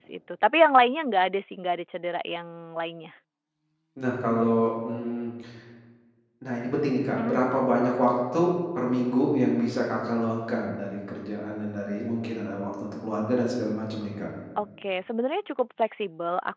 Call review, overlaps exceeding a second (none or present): none